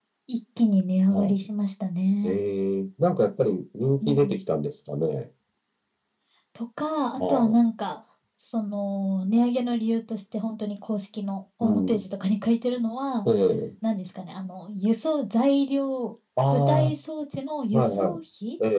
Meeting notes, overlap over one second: none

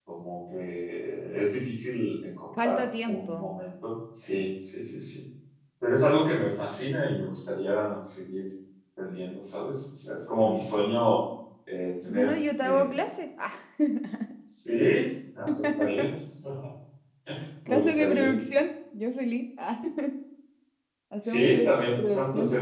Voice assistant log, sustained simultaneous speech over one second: present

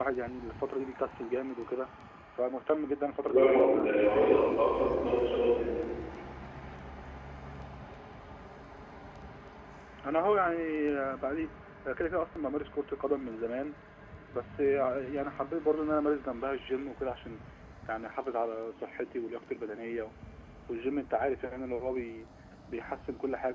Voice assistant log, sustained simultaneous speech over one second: present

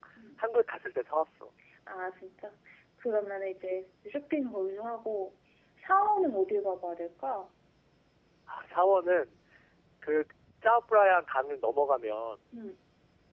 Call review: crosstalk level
none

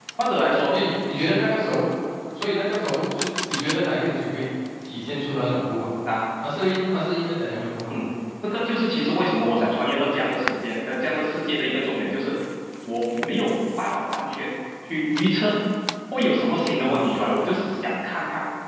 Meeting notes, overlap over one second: none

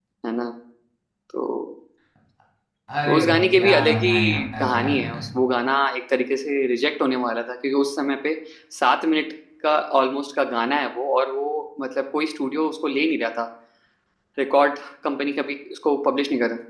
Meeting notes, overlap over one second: present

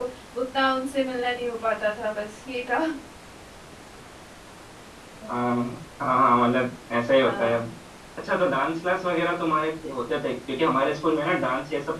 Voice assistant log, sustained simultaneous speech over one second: none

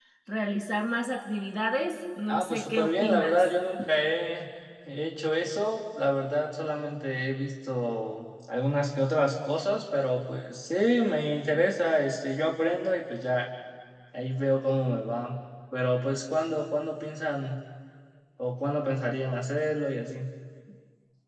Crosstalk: present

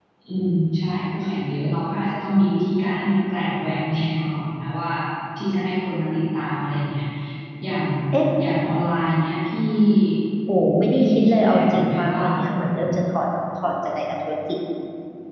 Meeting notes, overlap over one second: present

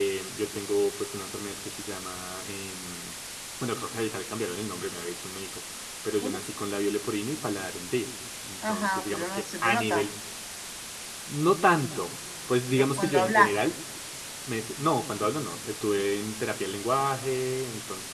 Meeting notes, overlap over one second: present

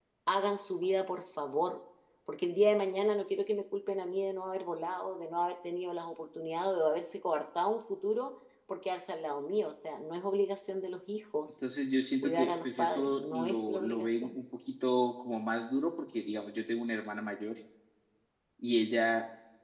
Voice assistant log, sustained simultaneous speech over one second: present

